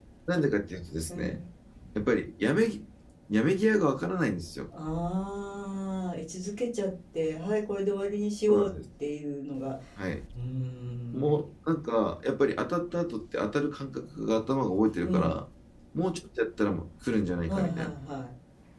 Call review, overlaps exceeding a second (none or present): none